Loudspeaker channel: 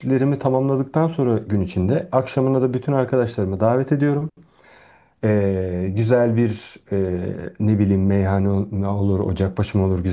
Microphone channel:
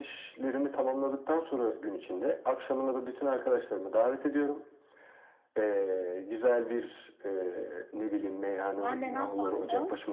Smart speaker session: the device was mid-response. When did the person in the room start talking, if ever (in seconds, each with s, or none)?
8.8 s